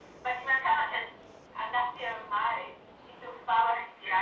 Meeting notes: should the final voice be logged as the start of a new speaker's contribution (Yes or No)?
Yes